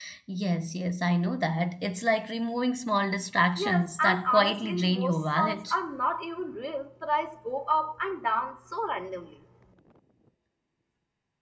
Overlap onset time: 3.6 s

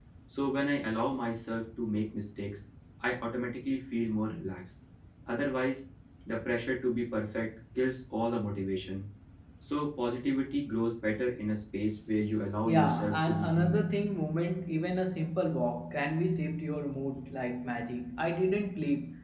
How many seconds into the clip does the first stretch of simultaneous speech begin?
12.6 s

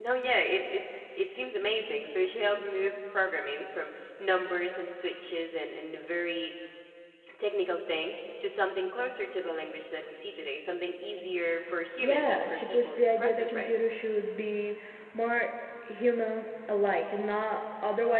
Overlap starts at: 12.0 s

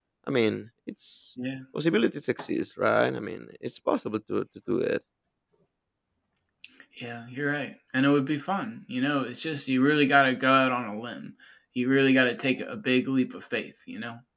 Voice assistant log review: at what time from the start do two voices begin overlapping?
none

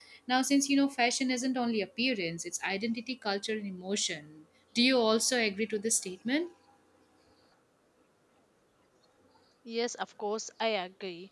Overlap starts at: none

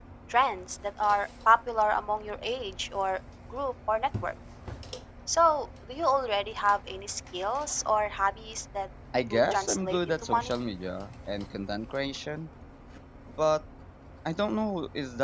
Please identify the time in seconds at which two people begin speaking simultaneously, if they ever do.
9.1 s

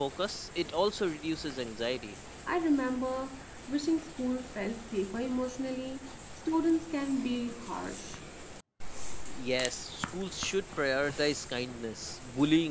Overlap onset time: none

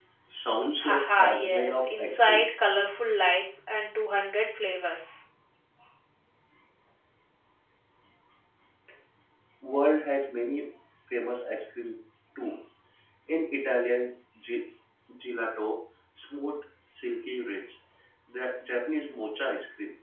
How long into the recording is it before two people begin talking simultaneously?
0.8 s

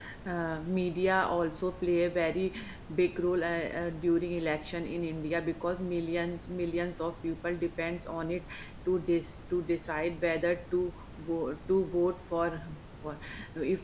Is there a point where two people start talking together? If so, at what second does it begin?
none

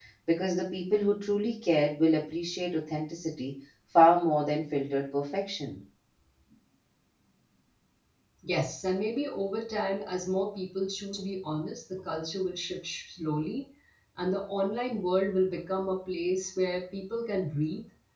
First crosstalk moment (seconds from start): none

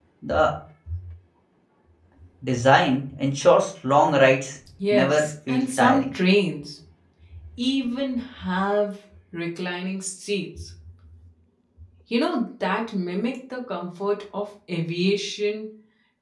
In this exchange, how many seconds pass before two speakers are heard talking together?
4.8 s

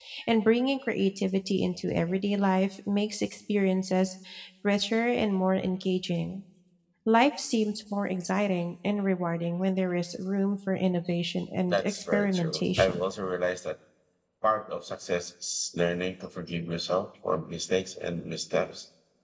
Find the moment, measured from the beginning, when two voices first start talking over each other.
11.7 s

